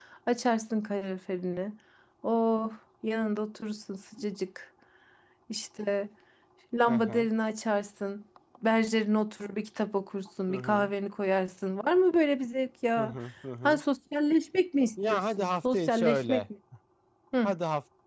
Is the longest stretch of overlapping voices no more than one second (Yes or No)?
No